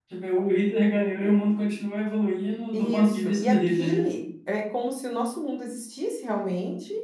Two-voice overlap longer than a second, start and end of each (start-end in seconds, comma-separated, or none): 2.7-4.1